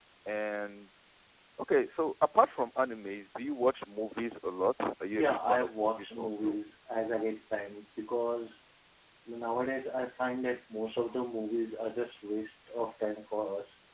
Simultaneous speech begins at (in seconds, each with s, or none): 5.1 s